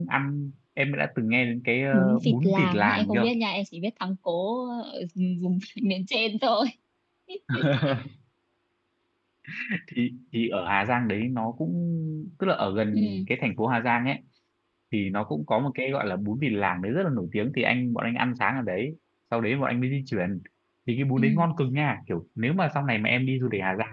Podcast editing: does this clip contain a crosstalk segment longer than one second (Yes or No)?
Yes